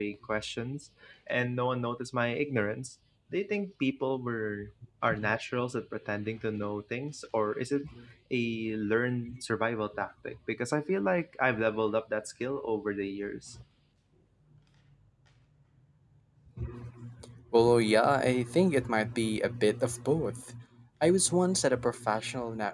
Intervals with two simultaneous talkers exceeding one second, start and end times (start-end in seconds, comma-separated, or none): none